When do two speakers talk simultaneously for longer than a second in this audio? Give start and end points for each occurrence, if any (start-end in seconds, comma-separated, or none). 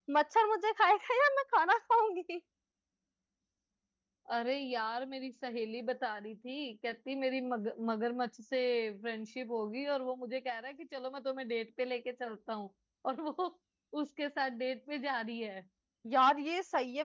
none